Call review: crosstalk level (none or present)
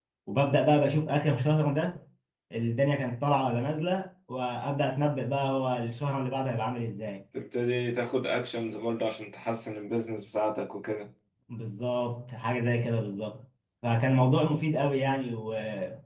none